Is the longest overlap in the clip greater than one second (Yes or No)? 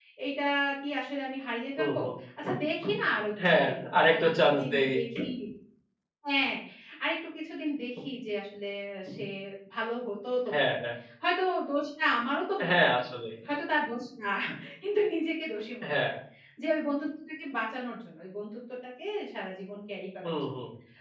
Yes